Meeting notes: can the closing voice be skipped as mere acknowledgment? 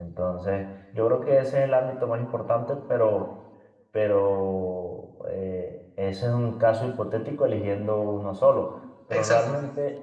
Yes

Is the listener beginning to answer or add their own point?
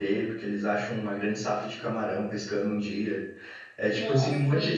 No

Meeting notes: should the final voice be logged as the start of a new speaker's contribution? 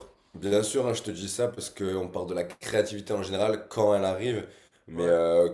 No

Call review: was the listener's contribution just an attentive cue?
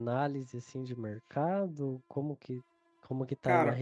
Yes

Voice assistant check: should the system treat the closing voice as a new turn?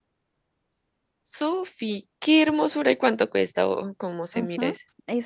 Yes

